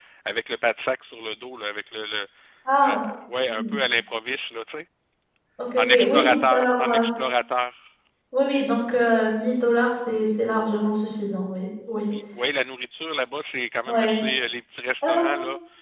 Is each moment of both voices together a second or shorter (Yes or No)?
No